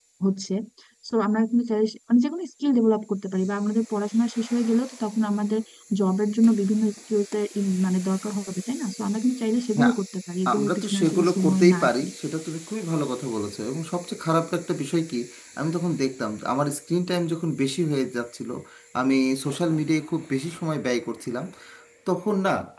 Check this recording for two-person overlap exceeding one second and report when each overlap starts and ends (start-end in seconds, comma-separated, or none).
10.5-12.1